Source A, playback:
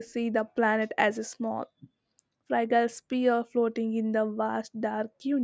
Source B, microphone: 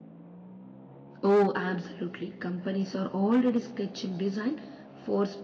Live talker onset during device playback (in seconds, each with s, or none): 1.2 s